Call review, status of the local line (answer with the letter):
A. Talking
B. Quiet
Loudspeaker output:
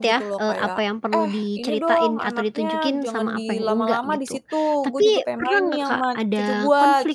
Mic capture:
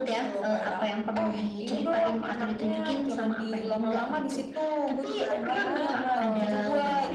A